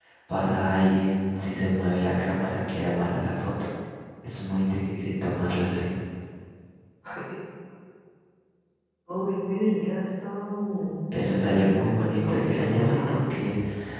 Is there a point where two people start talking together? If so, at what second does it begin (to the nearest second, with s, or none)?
11 s